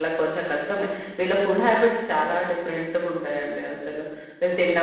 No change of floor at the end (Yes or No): No